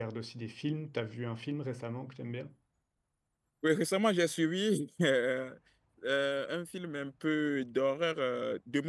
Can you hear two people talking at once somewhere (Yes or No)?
No